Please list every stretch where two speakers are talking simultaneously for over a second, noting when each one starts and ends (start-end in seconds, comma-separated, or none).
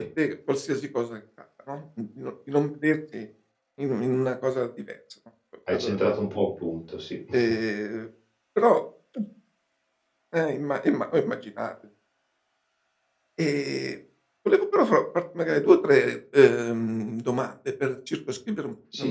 none